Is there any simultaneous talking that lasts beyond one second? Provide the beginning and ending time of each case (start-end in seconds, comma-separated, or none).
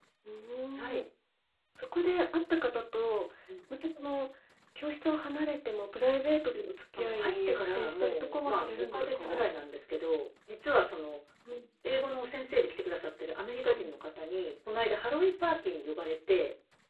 7.0-9.4